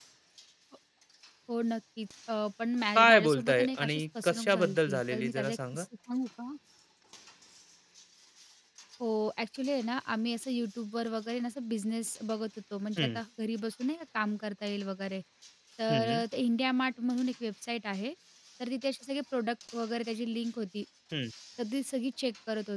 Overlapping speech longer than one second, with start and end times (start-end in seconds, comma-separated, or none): 3.0-5.8